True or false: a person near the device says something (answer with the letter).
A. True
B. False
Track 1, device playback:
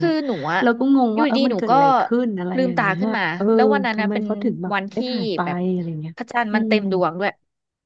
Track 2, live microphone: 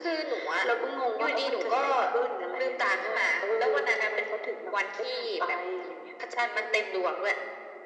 B